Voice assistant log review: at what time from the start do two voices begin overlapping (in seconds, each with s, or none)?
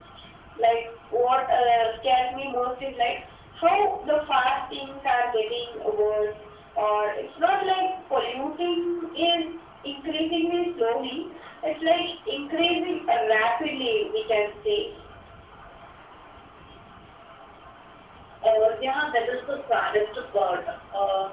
none